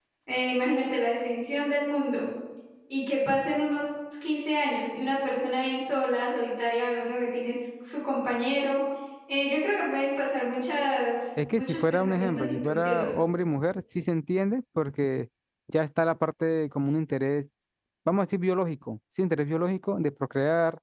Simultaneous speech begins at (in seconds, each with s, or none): 11.4 s